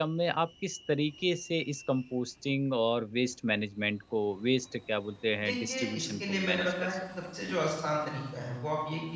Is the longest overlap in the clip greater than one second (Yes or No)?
Yes